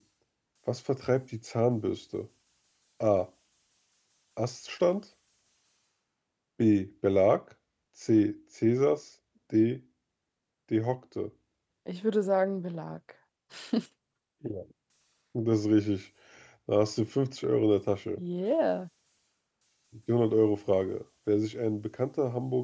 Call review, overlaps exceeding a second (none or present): none